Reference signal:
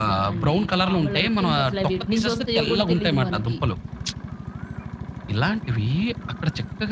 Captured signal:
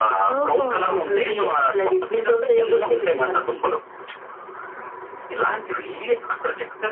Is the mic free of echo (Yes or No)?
No